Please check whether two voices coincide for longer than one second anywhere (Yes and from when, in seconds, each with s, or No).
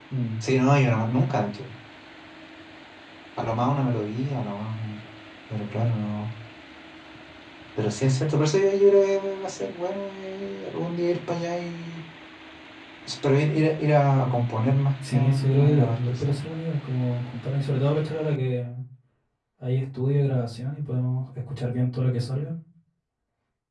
Yes, from 15.0 s